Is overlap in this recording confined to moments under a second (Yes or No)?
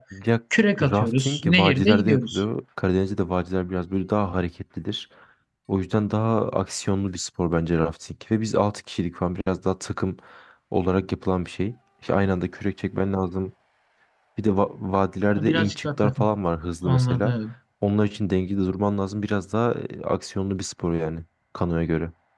No